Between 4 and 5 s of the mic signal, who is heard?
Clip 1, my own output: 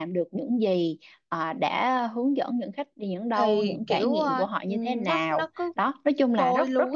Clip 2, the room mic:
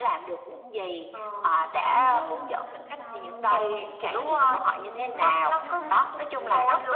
both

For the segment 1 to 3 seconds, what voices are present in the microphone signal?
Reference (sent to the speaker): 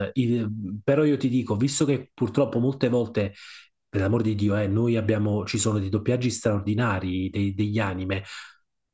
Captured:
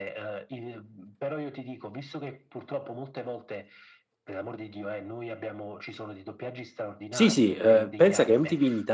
echo only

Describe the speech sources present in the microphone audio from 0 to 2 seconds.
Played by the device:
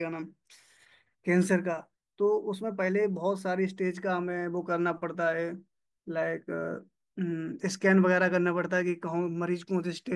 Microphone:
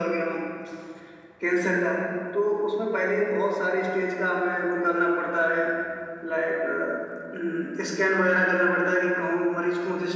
echo only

